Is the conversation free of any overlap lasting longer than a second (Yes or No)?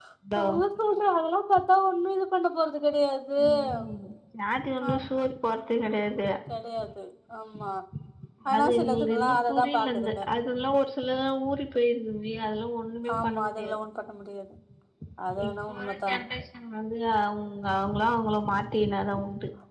No